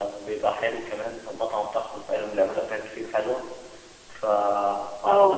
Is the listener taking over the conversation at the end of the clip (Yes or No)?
No